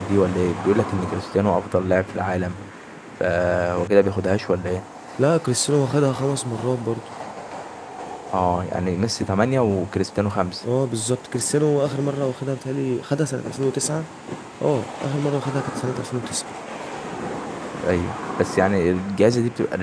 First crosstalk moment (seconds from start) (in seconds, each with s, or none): none